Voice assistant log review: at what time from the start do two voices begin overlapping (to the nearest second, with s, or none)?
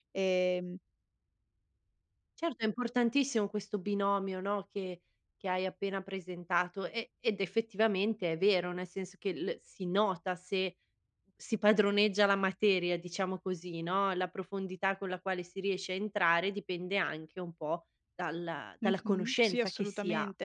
19 s